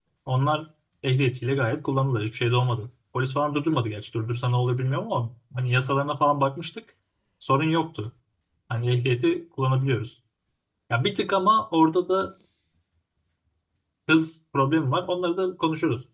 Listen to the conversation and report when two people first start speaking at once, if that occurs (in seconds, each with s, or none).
none